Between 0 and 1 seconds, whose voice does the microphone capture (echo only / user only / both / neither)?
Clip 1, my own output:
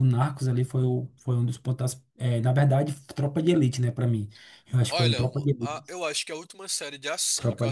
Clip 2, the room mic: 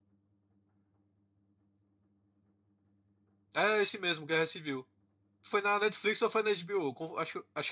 neither